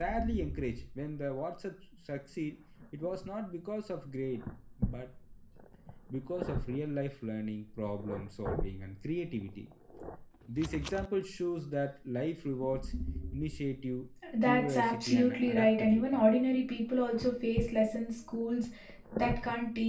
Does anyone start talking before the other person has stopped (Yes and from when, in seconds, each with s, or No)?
Yes, from 14.4 s